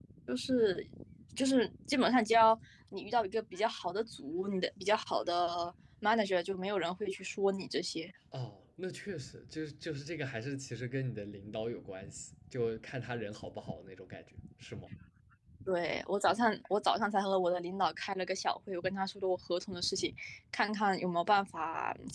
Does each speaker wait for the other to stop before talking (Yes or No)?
Yes